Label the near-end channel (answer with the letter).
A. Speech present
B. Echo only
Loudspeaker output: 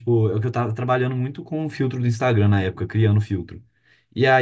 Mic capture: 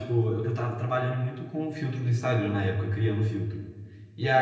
B